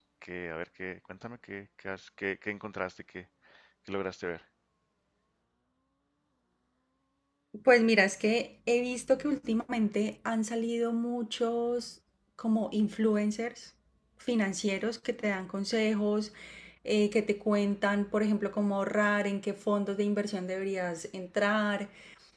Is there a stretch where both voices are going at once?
No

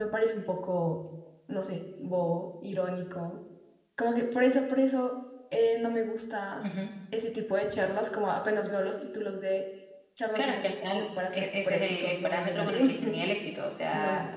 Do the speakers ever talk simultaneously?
Yes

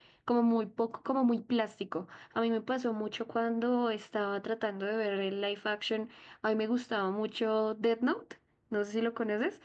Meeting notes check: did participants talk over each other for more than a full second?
No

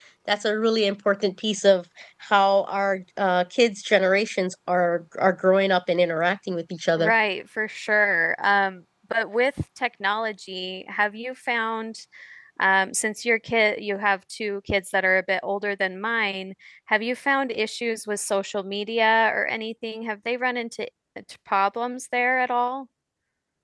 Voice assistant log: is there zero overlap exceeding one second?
Yes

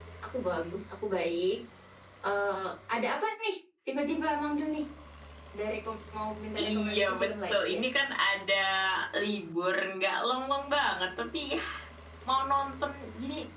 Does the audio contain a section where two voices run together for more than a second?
Yes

